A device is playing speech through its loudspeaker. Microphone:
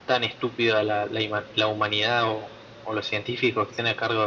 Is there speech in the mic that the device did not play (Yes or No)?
No